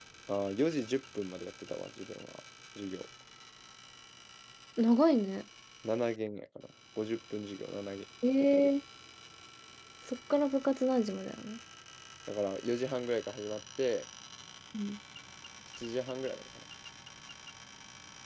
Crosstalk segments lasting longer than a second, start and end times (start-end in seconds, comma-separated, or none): none